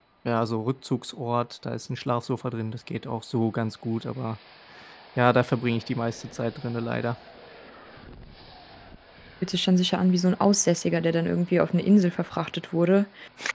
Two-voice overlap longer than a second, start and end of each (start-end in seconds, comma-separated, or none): none